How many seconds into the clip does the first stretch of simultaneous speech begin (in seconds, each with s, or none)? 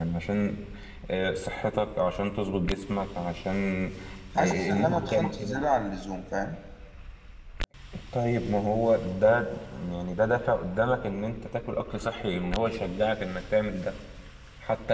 4.4 s